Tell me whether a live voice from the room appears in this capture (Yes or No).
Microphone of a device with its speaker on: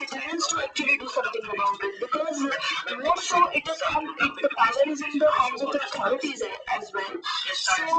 No